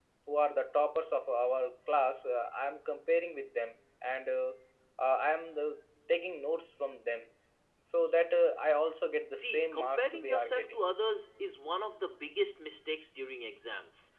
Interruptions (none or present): present